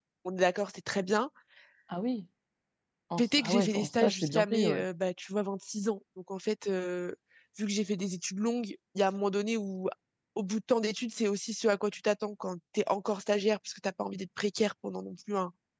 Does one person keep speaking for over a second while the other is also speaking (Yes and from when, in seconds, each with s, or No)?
Yes, from 3.2 s